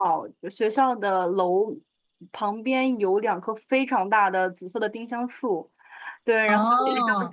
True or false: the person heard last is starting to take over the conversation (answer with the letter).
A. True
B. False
B